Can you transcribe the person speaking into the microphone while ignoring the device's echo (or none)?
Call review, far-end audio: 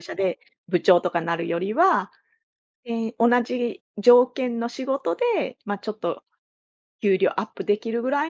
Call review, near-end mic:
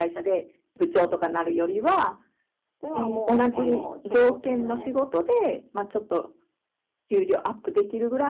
ではもう、あの、挑戦